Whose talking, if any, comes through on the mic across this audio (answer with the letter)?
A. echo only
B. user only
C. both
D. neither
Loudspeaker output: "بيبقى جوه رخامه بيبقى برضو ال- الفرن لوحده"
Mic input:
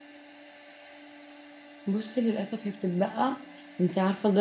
B